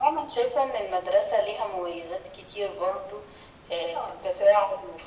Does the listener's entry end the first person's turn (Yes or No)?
No